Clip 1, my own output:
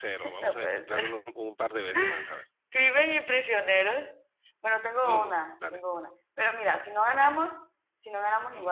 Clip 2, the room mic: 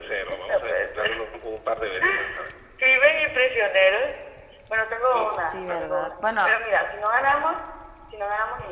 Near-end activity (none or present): present